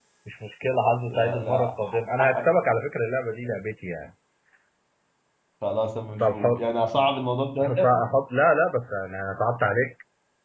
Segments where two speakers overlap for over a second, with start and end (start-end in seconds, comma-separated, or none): 1.1-2.4